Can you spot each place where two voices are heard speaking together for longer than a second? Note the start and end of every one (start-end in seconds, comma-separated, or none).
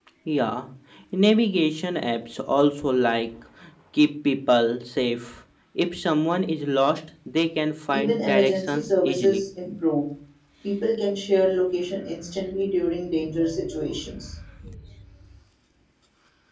7.9-9.4